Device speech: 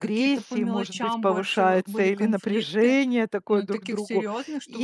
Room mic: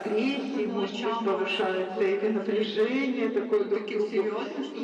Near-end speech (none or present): none